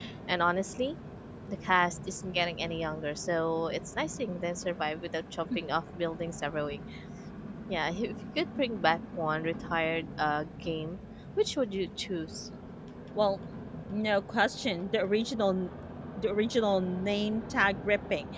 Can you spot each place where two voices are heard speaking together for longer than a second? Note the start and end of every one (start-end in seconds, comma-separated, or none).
none